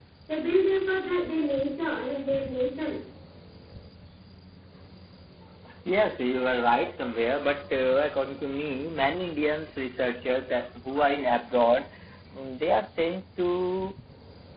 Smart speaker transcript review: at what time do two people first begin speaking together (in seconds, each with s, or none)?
none